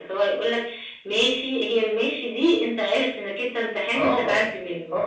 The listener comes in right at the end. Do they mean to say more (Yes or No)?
Yes